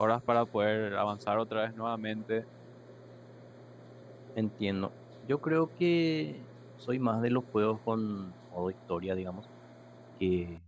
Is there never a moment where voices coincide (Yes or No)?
Yes